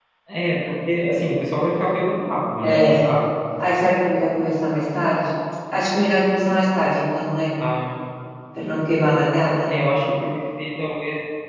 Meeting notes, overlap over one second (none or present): none